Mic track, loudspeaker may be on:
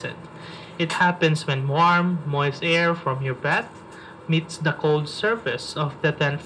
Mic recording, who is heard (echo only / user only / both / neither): echo only